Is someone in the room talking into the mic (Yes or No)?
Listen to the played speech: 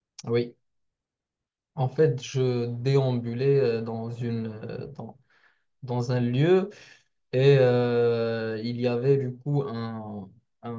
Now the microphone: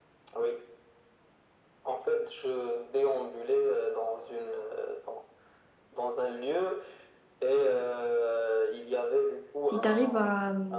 Yes